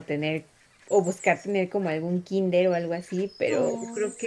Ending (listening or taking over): listening